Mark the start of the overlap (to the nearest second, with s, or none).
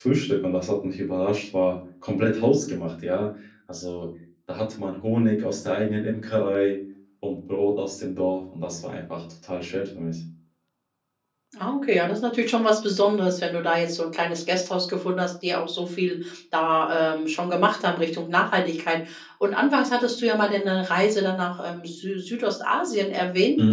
none